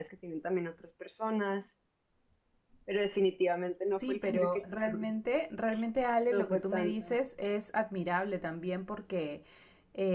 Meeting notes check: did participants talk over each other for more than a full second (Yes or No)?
Yes